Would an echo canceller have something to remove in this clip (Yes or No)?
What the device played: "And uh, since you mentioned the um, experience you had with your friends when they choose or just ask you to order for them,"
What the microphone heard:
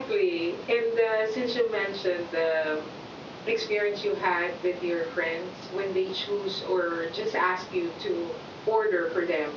Yes